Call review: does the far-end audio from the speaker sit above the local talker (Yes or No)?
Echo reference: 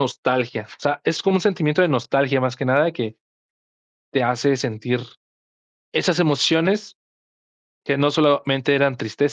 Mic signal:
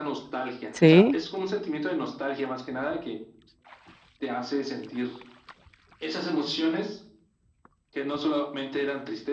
No